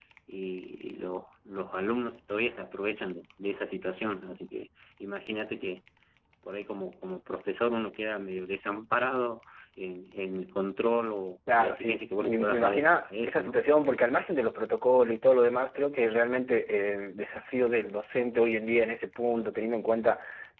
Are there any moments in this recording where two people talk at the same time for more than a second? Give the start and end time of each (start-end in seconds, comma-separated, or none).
11.5-13.6